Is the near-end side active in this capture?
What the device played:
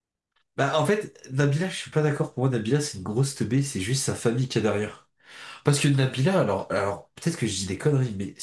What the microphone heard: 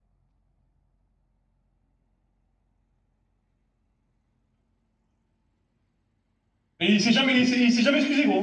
Yes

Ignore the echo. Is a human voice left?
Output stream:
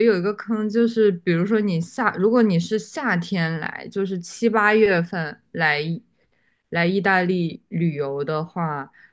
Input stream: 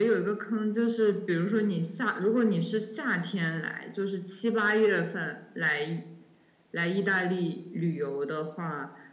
No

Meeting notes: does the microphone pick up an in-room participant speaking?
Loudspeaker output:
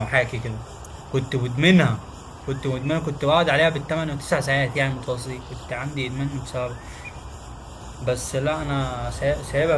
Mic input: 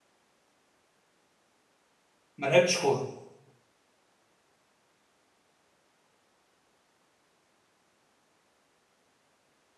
Yes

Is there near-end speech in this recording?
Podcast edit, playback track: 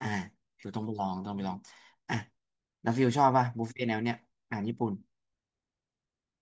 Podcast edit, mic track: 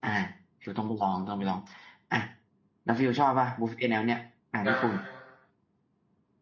Yes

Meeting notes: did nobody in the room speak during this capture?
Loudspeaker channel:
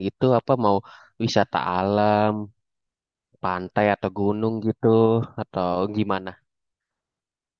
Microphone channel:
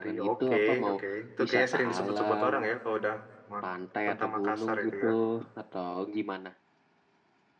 No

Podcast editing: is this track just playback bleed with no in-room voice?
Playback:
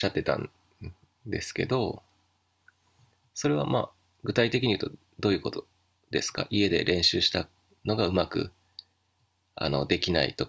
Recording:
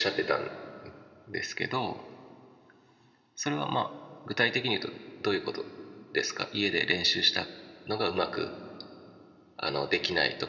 Yes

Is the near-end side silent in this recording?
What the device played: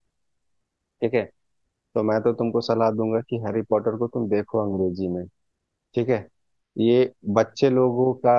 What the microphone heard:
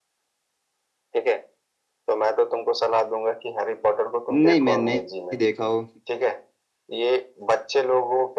No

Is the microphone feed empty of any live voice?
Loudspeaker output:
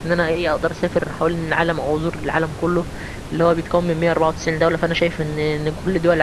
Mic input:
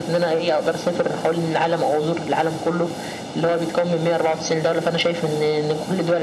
Yes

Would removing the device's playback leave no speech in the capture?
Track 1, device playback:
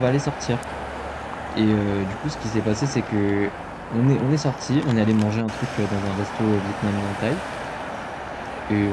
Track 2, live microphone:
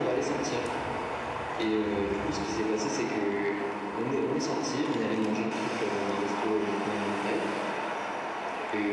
Yes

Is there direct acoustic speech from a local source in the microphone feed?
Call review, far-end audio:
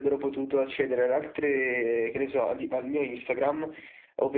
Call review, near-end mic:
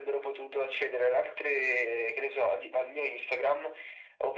No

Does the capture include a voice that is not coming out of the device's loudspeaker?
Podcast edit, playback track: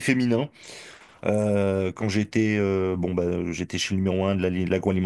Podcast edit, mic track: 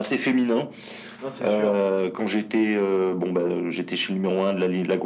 Yes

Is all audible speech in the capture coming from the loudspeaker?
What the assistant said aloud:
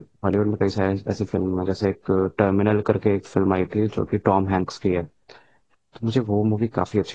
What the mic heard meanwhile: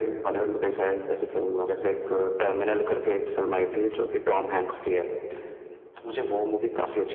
Yes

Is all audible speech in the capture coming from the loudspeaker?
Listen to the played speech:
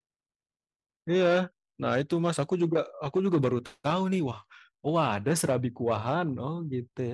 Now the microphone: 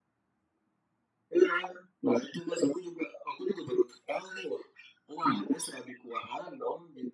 Yes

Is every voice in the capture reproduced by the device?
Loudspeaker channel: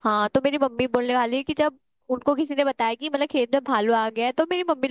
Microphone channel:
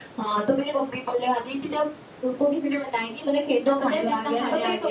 No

